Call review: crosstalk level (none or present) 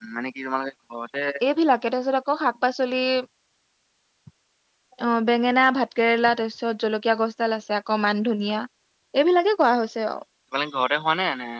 none